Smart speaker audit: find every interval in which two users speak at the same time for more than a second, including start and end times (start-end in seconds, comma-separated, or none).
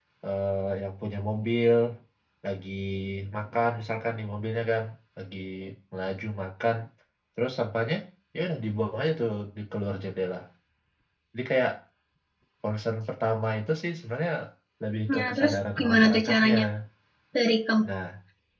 15.1-16.5